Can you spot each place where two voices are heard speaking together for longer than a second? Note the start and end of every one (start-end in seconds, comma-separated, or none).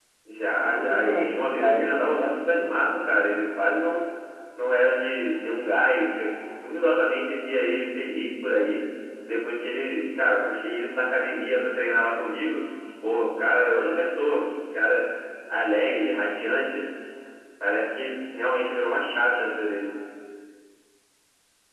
0.6-2.3